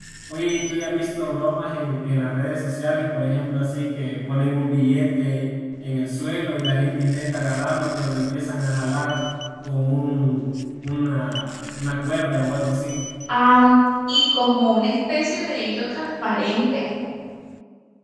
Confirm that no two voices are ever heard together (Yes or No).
Yes